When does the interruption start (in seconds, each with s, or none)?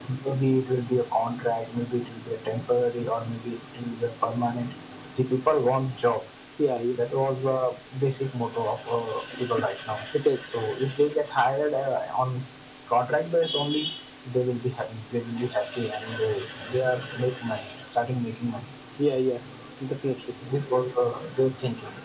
none